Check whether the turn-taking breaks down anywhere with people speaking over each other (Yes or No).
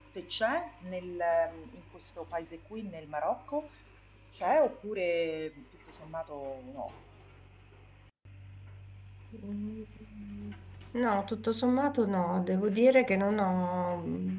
No